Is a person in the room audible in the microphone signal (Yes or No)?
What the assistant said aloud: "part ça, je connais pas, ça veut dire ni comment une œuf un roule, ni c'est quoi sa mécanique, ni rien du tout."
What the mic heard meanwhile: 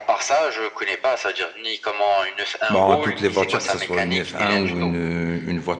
Yes